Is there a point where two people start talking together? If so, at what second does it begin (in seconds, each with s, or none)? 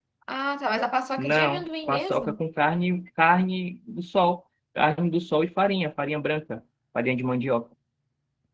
1.2 s